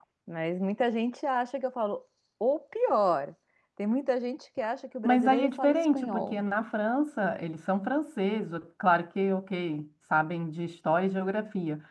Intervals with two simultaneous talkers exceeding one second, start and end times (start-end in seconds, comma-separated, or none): 5.0-6.4